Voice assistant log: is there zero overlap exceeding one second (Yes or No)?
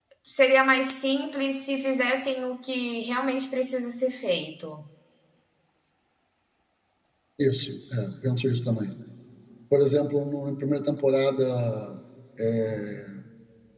Yes